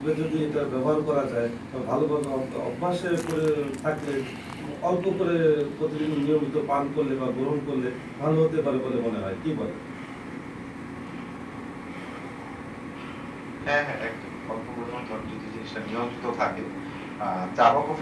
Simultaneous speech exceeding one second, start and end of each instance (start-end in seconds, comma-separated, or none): none